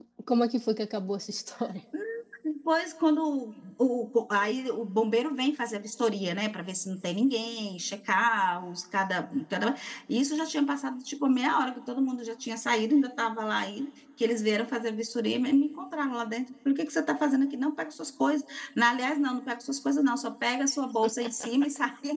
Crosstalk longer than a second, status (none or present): none